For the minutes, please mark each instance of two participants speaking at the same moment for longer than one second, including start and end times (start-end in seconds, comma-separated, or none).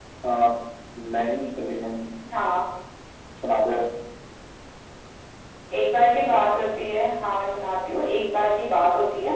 none